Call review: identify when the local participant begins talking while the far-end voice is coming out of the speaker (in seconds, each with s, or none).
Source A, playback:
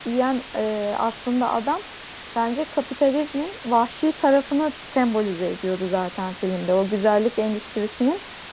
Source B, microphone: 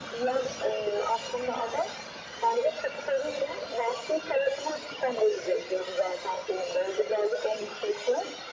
none